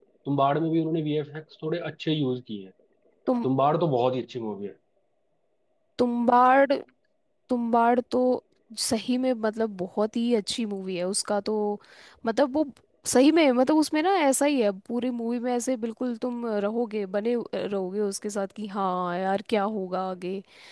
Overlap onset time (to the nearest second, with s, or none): none